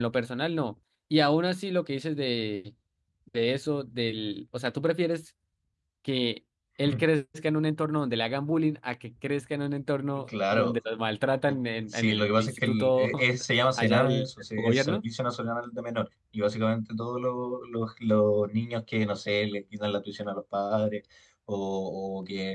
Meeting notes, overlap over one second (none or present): present